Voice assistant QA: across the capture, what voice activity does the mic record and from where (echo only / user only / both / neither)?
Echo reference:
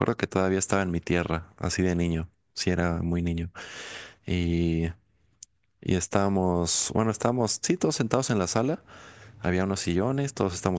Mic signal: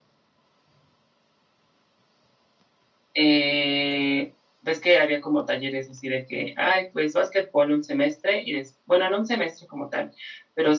user only